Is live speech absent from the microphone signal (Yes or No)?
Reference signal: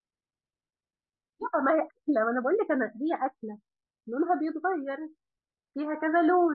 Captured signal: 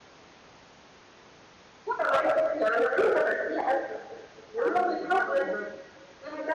No